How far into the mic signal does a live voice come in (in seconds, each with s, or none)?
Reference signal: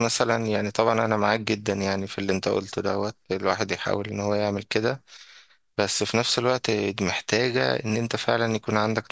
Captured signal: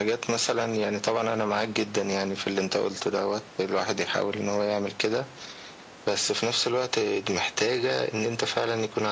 none